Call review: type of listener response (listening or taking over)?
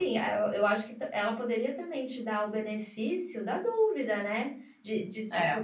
listening